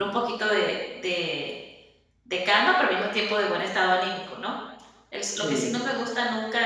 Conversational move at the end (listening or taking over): listening